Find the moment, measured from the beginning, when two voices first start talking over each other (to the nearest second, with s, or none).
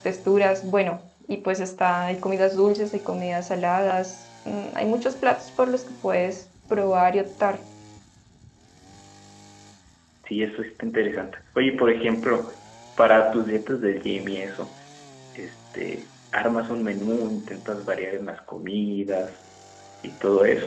none